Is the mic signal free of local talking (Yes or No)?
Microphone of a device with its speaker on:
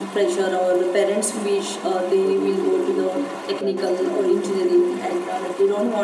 No